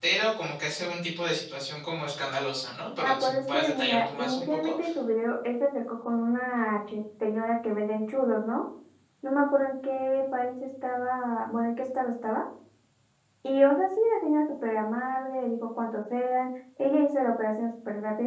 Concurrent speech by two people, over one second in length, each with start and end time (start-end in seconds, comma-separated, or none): 3.0-4.7